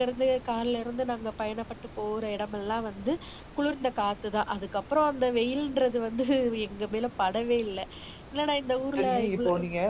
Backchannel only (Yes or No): No